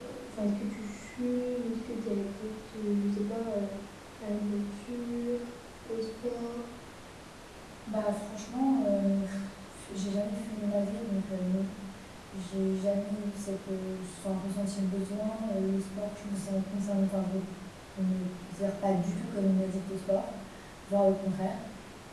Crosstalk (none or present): none